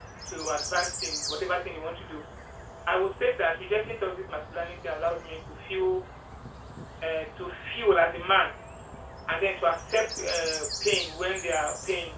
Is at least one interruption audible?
No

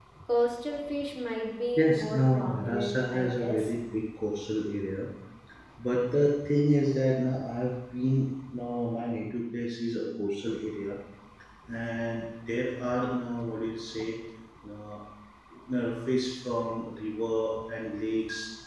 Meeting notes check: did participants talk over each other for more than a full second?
Yes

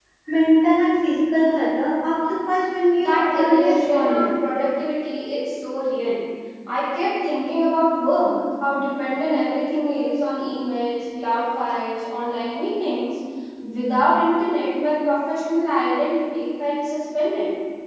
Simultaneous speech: Yes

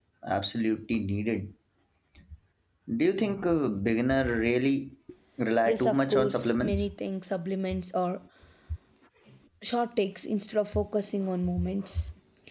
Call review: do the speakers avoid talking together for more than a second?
No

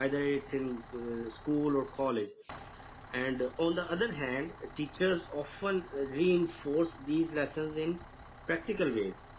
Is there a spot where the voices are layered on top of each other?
No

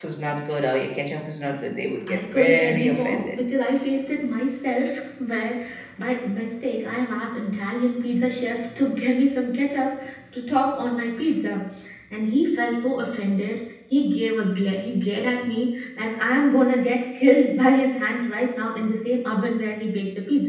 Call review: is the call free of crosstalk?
No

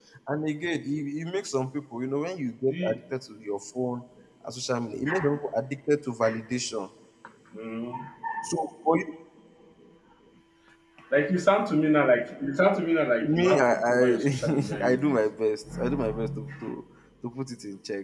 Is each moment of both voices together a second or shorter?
No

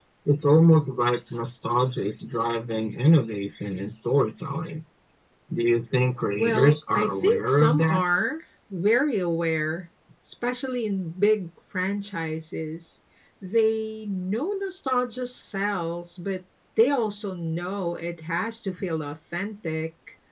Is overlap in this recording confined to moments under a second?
No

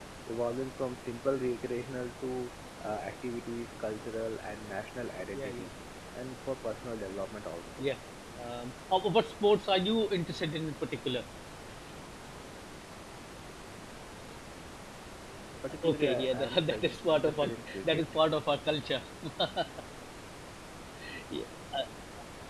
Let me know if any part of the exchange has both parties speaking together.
Yes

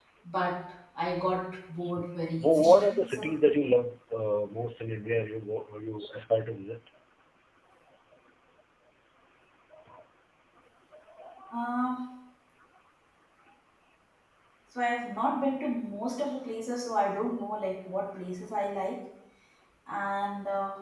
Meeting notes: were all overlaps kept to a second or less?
No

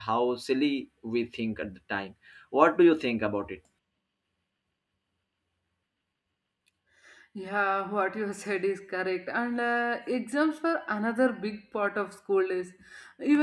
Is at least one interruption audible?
No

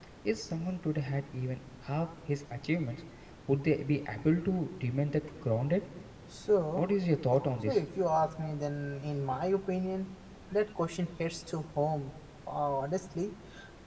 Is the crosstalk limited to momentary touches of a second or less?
Yes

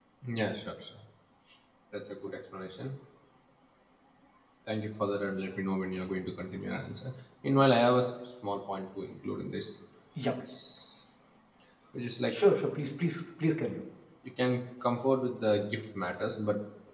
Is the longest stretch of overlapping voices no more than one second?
Yes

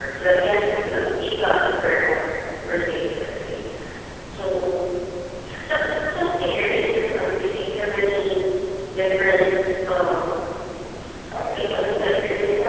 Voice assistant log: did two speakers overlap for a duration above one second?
Yes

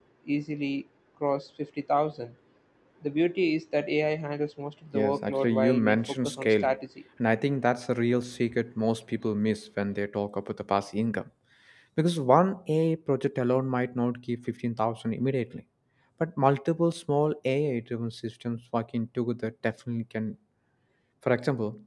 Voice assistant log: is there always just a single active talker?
No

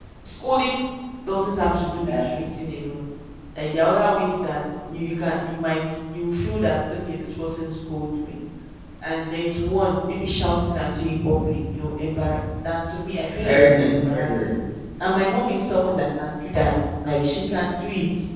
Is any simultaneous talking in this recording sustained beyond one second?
Yes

